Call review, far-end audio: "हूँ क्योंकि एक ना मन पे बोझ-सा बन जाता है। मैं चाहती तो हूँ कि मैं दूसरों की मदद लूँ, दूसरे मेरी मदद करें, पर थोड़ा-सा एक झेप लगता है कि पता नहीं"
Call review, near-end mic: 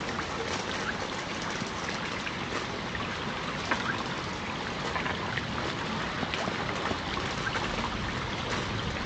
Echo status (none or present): none